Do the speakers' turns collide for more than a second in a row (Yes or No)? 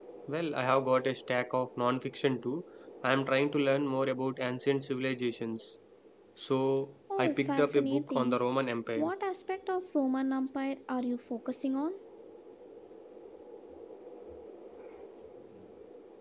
Yes